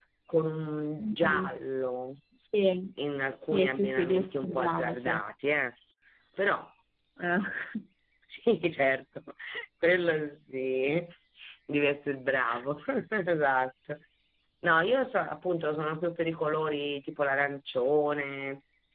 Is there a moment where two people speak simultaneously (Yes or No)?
Yes